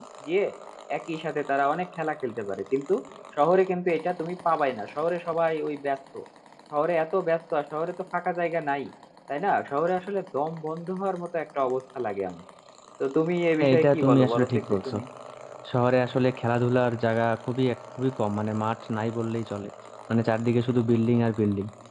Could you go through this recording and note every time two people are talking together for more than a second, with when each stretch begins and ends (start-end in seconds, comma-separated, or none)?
13.6-14.9